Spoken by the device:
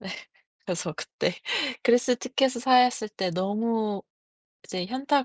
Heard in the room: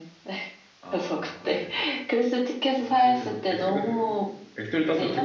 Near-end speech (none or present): present